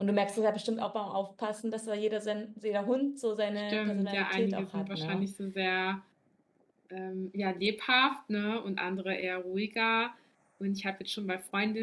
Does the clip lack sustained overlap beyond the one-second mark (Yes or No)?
No